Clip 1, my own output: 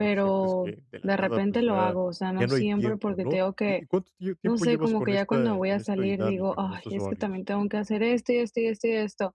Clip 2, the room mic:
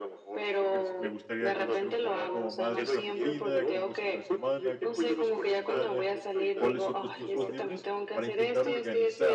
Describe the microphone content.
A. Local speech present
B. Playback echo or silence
A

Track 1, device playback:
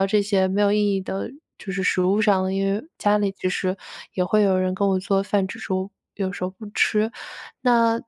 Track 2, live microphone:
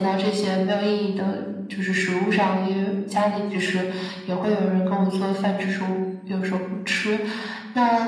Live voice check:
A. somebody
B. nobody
B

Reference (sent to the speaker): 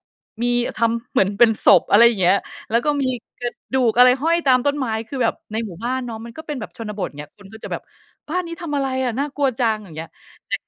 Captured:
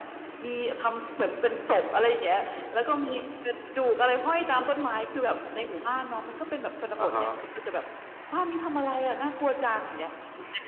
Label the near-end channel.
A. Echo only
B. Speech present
B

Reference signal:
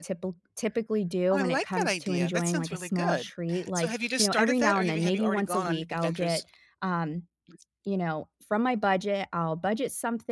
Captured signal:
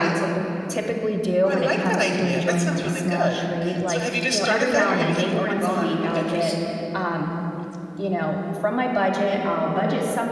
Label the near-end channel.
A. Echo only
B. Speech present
A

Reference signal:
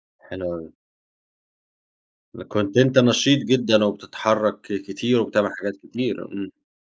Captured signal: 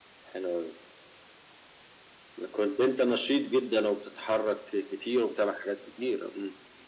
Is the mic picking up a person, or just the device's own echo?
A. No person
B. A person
A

